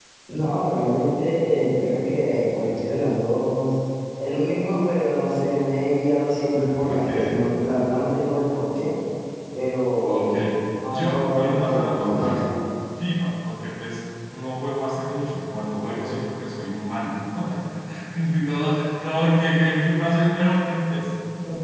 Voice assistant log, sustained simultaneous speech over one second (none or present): present